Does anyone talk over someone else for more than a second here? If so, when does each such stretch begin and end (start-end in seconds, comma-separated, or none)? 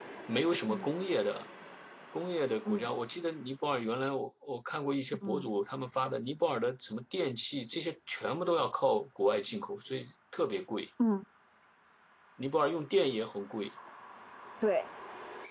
none